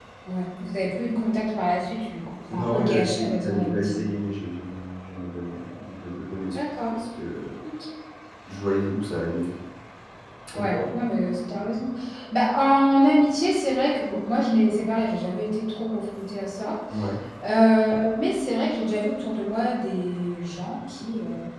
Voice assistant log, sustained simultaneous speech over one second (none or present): present